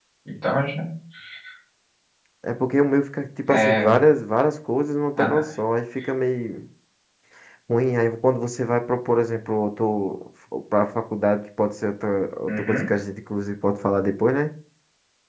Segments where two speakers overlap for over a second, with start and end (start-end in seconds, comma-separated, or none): none